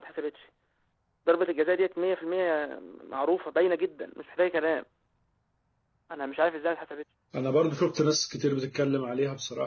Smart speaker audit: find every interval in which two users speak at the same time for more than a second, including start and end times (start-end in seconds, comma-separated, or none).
none